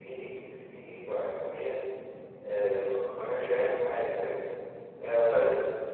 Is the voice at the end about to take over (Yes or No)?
No